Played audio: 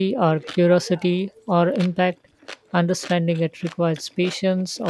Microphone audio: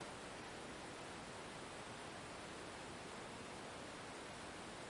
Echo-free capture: Yes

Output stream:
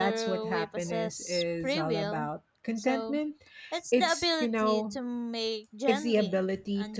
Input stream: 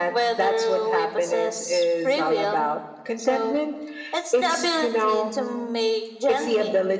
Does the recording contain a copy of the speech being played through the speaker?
Yes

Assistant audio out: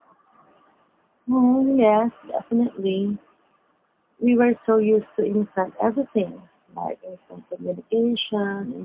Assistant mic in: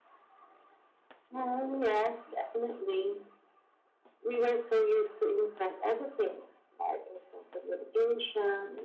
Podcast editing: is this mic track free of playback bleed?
No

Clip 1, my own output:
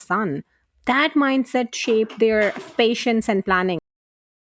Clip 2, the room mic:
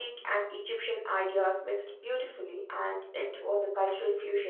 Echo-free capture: Yes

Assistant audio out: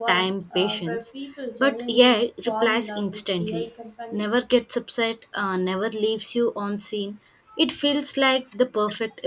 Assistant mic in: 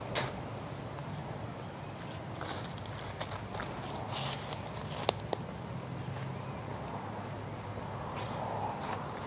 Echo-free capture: Yes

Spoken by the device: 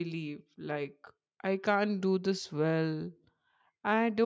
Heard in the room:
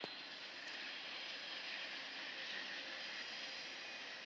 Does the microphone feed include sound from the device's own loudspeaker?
No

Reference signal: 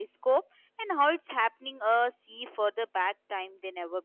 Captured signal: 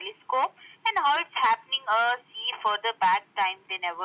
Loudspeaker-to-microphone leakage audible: Yes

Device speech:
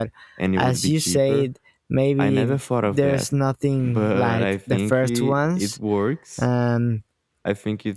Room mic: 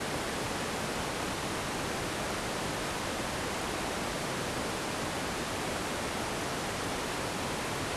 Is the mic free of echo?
Yes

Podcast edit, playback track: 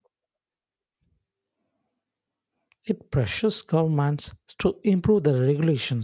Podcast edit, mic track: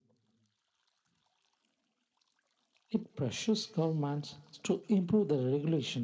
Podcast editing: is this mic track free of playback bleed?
No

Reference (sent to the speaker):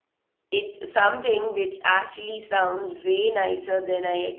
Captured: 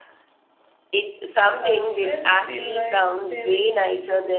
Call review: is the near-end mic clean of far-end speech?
No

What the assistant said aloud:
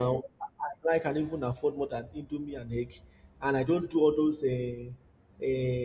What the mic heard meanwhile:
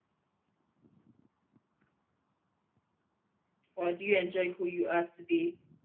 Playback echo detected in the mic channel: No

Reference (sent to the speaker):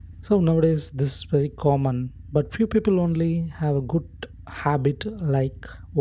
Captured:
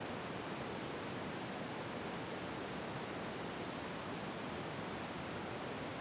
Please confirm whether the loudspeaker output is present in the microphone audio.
No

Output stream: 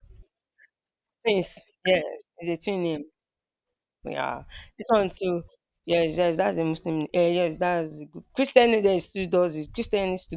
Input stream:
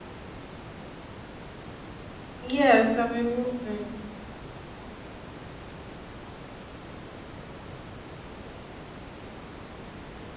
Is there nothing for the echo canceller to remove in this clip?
Yes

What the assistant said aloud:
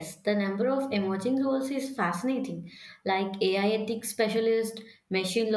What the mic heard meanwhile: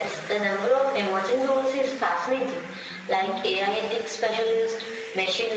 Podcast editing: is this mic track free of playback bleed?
No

